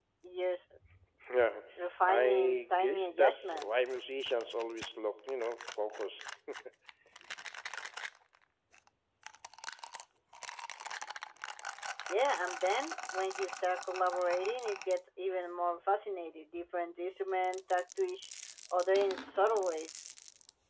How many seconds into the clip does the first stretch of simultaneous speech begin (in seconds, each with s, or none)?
2.1 s